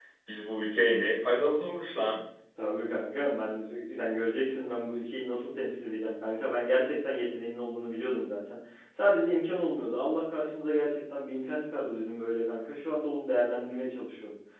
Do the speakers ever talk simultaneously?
No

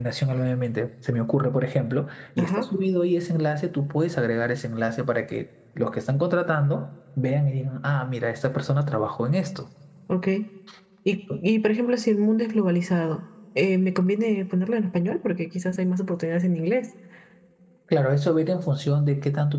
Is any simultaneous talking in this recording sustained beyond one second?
No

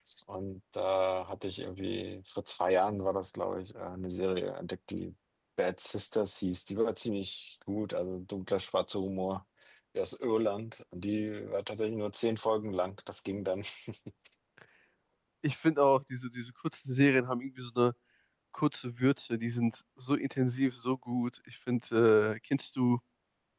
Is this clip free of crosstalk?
Yes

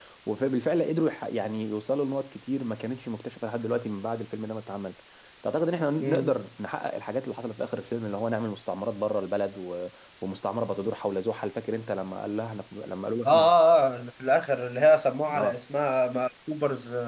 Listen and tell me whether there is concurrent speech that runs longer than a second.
No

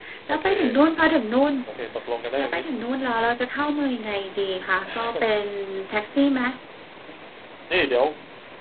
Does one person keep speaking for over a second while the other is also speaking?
No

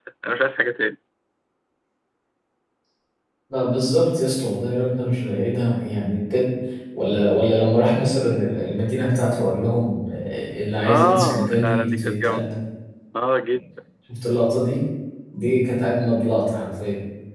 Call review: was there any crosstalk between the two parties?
Yes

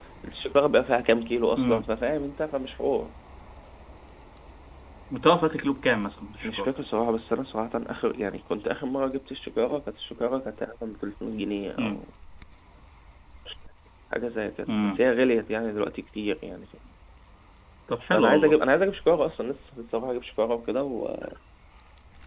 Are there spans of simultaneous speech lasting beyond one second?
No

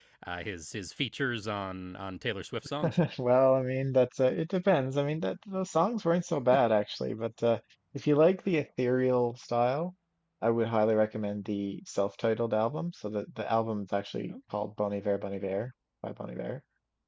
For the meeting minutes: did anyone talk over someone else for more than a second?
No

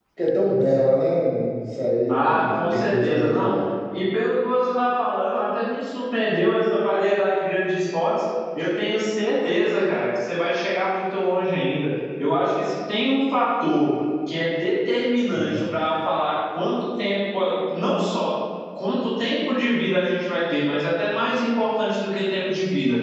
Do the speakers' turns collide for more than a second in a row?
Yes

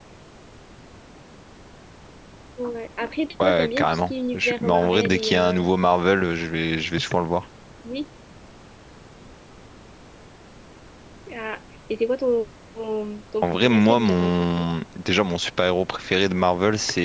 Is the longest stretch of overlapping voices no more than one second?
No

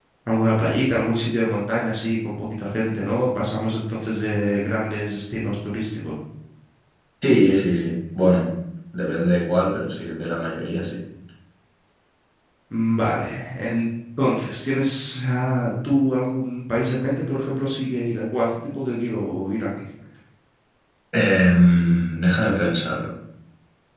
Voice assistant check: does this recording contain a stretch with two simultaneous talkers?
No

